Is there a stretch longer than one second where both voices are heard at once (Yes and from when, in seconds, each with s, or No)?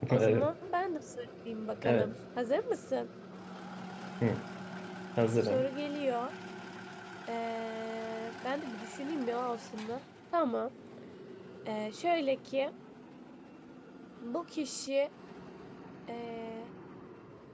No